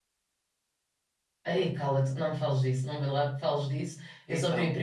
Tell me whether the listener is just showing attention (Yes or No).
Yes